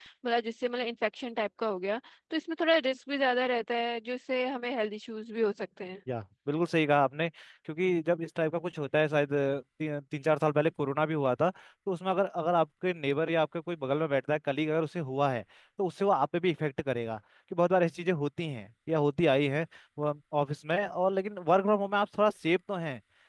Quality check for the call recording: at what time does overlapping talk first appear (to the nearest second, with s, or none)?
none